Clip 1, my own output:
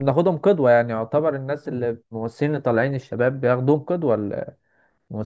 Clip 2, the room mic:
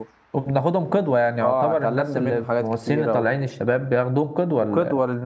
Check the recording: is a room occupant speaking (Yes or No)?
Yes